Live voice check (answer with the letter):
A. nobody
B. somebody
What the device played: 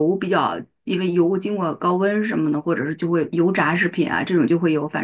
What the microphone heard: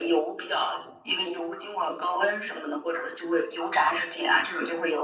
A